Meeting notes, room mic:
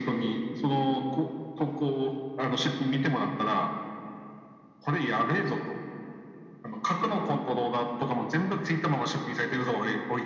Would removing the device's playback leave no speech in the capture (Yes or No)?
Yes